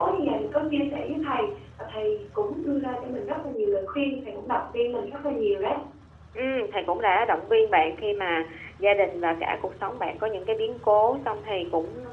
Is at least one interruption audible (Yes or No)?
No